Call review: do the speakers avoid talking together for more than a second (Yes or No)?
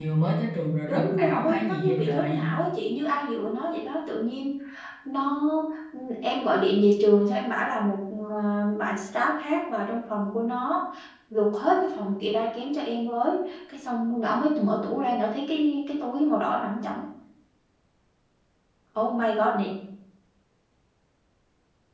No